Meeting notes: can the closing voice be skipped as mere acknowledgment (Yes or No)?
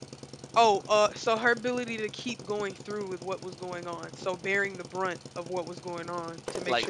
Yes